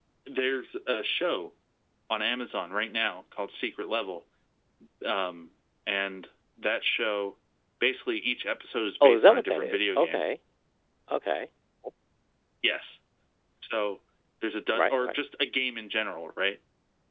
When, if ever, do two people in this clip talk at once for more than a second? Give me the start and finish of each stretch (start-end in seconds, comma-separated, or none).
9.0-10.2